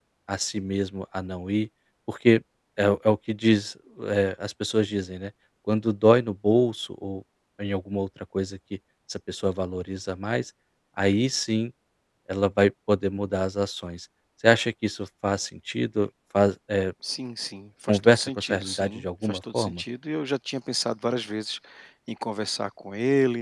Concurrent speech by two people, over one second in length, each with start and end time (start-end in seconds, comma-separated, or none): 17.9-19.8